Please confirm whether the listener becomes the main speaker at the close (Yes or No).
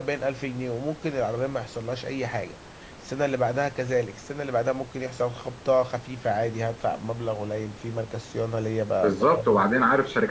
Yes